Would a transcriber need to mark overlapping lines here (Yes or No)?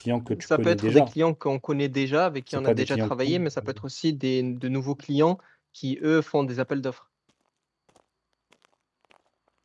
Yes